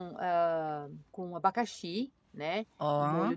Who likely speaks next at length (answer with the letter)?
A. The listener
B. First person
B